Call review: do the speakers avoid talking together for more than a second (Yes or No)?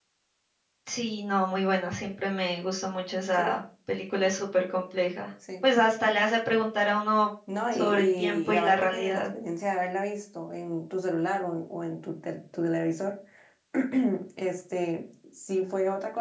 No